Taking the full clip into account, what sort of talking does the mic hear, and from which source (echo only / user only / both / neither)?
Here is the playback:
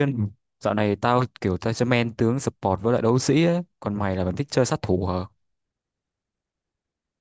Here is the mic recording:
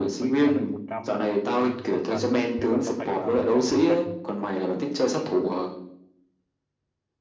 both